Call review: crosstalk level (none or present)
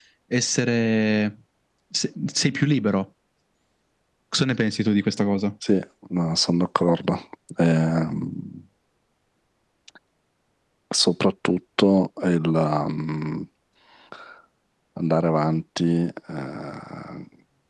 none